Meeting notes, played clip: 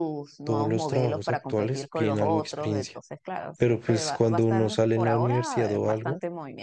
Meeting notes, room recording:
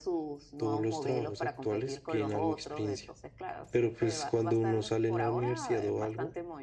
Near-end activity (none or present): none